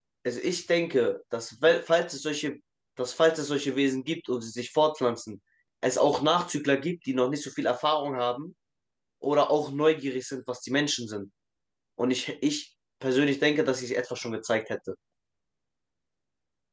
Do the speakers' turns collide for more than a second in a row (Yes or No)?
No